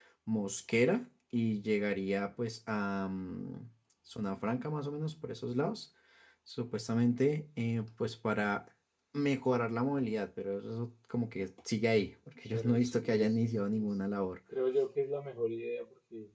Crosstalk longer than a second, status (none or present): present